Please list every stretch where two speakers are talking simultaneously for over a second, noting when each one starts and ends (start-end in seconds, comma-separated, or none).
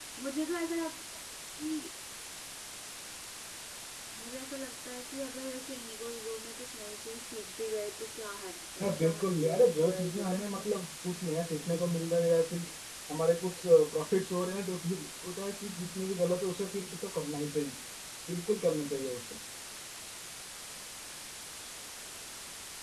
8.8-10.8